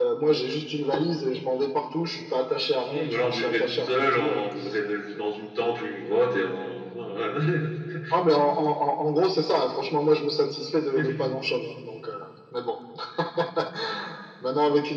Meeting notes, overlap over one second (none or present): present